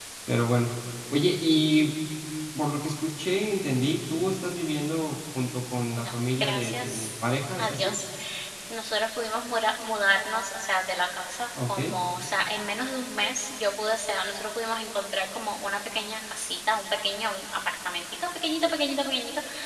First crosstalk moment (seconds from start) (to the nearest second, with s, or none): 6 s